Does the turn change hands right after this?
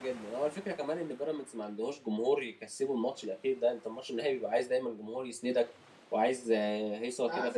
Yes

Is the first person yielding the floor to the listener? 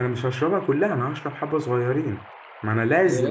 No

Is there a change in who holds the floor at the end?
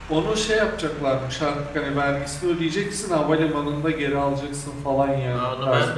Yes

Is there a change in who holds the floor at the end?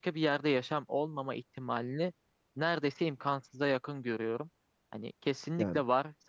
No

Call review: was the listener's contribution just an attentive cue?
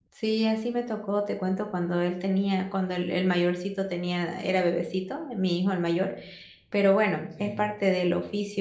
Yes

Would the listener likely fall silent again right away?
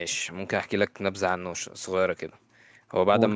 Yes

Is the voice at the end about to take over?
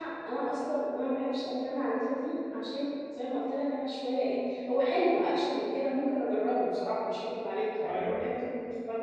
No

